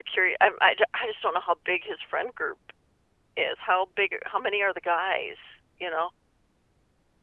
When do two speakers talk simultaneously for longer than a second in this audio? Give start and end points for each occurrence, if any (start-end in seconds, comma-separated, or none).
none